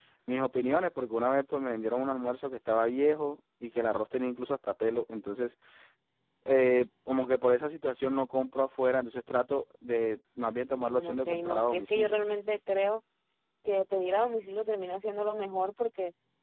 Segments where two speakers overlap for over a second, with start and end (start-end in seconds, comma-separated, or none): 10.7-12.1